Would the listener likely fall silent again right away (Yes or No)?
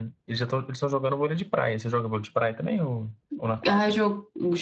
No